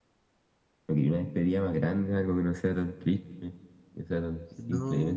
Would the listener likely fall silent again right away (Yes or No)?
No